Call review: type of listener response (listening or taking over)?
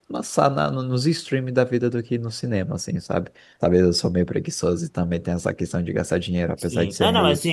taking over